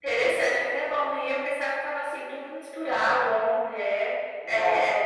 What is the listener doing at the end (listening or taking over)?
listening